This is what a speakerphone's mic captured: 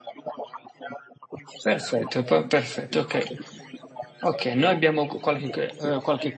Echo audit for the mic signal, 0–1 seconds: echo only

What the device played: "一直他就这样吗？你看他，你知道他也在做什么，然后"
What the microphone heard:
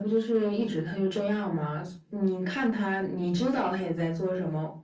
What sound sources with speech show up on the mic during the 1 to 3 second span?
echo only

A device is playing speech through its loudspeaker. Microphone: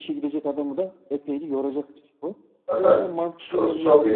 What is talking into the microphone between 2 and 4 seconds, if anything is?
both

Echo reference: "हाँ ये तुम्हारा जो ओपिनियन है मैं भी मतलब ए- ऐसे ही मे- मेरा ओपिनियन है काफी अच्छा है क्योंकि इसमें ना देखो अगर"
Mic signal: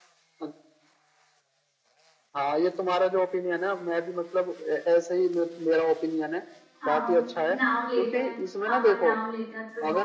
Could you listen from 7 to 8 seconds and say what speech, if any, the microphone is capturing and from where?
both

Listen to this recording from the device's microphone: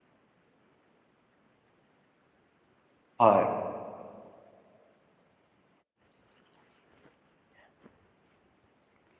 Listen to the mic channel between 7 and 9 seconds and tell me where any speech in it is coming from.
neither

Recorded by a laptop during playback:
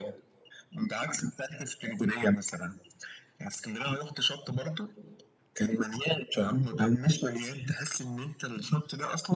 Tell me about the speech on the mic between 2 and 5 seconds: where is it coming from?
echo only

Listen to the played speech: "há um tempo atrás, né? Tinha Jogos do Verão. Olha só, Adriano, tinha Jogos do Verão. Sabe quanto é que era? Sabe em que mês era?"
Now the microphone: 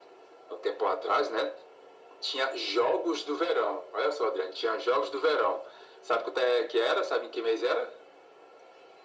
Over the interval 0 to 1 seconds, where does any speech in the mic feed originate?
echo only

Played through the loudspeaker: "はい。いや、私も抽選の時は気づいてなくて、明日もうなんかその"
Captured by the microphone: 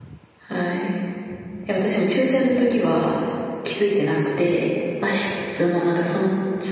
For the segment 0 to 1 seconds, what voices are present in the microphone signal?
echo only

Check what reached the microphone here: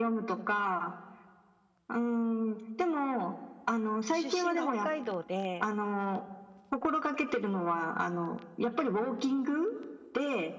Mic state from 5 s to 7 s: both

